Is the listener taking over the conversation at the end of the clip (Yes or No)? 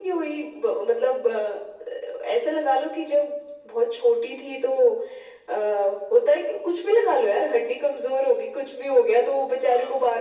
No